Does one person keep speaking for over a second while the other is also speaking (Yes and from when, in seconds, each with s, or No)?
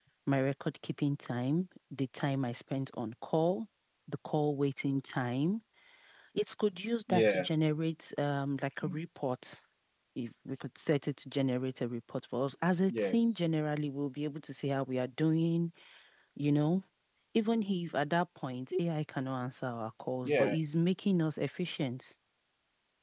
No